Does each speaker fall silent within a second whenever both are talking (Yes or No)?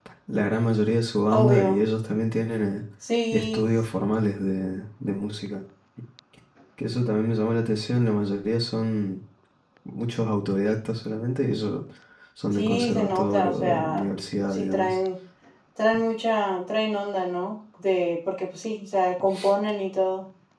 No